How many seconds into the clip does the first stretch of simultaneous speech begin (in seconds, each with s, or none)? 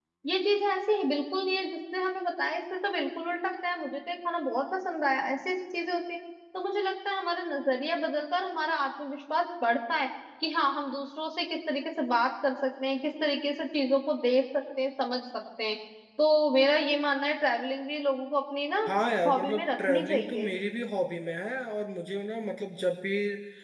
19.3 s